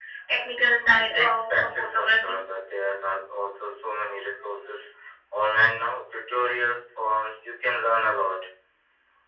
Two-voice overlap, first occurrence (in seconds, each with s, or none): 1.0 s